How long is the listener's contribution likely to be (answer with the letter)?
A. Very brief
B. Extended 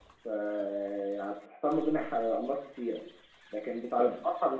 A